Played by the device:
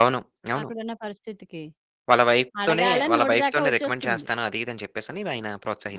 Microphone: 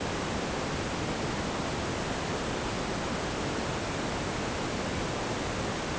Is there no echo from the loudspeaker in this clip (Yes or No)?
Yes